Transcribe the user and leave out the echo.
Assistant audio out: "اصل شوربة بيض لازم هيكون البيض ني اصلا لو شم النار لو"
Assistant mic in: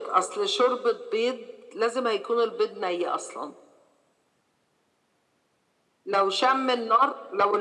none

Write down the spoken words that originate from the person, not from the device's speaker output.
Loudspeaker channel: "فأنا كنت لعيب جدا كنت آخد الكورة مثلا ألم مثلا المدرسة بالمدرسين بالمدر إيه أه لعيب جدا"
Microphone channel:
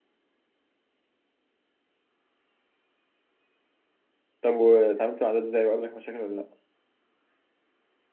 طب واتعاملت مع ده ازاي وقابلك مشاكل ولا لا

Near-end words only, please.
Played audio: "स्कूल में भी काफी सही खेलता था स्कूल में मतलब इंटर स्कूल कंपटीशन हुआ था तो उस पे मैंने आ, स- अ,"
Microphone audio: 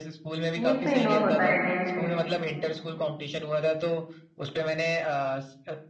ये एक तो इंडोर होता है गेम

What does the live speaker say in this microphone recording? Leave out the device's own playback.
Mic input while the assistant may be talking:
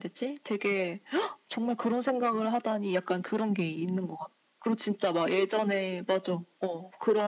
none

